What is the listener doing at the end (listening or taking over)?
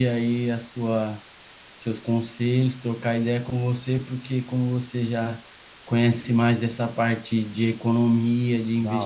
listening